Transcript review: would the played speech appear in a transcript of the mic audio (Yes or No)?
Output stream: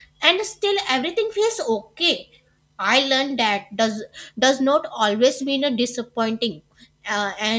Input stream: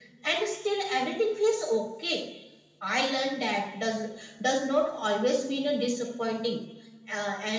Yes